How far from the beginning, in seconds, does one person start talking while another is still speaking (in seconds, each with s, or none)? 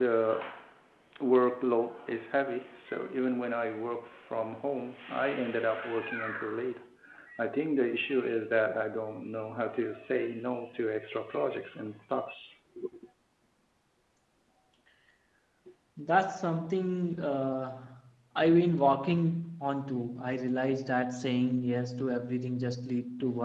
none